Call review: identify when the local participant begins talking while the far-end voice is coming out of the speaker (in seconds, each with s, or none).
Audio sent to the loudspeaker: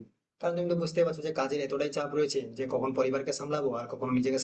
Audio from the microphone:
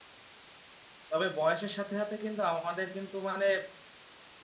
1.1 s